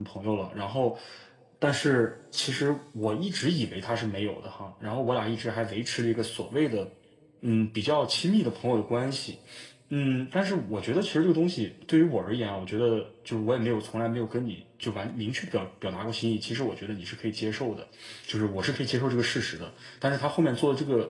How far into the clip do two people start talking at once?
none

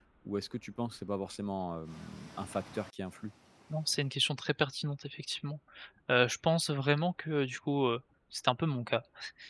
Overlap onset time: none

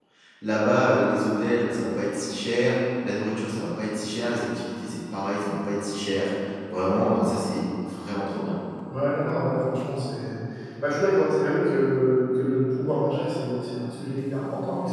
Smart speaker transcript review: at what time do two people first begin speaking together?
none

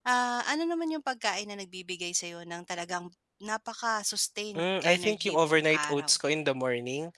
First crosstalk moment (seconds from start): 4.5 s

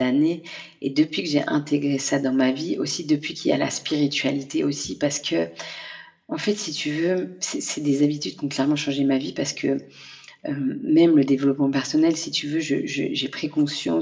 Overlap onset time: none

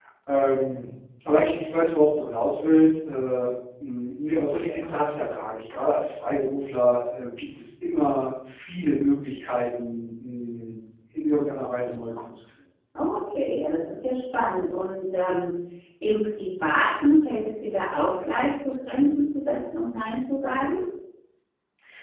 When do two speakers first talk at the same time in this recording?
none

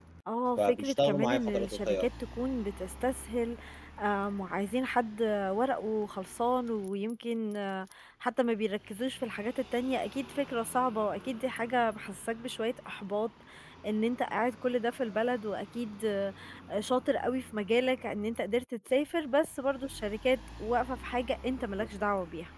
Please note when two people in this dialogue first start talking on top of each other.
0.6 s

